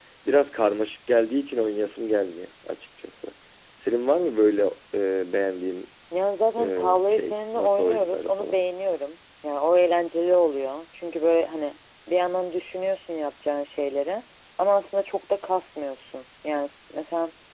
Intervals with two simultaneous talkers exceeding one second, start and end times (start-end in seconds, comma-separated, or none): 6.6-8.6